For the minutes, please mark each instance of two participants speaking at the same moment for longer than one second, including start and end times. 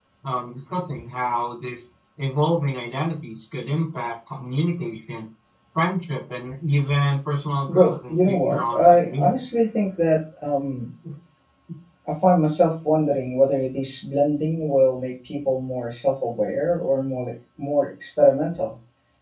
7.7-9.4

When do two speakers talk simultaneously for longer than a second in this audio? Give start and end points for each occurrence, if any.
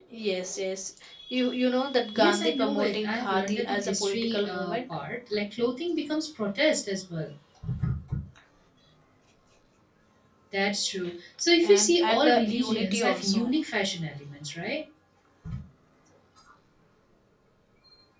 2.1-4.8, 11.6-13.5

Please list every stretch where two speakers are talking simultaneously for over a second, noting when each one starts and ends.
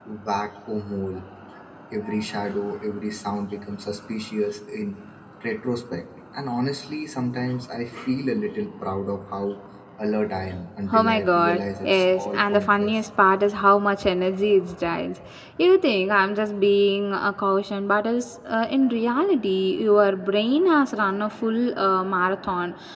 10.9-12.9

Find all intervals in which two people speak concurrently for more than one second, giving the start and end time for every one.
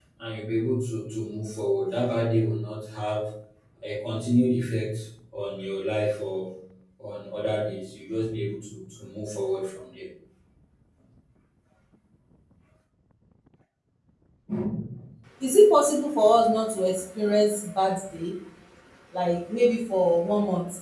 none

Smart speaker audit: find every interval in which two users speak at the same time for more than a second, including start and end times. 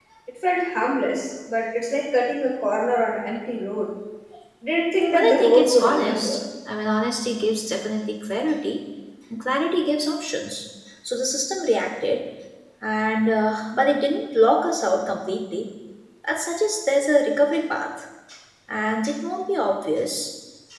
5.1-6.4

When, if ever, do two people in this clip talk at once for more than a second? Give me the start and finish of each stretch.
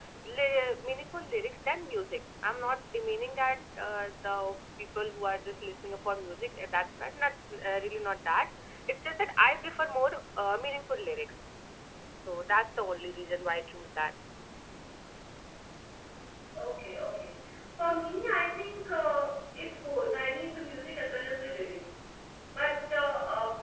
none

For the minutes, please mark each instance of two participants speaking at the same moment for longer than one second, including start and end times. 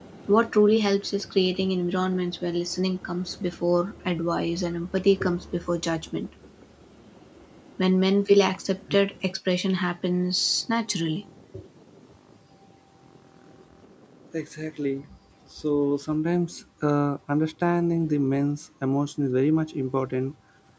none

